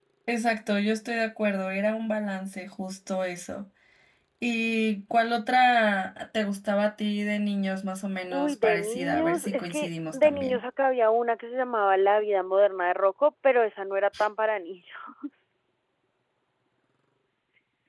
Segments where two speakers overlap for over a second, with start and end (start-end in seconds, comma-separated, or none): 8.3-10.6